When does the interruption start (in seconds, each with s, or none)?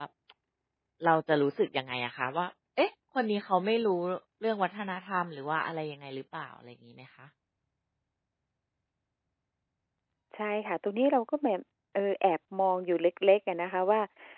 none